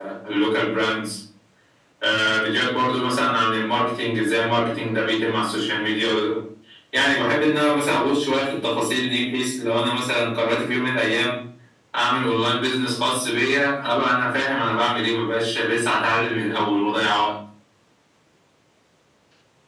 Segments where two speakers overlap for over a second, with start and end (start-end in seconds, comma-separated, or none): none